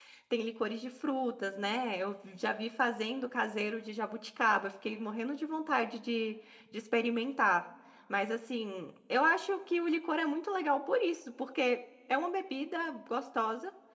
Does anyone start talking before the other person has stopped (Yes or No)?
No